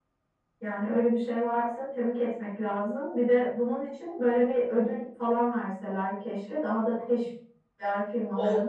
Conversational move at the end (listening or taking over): taking over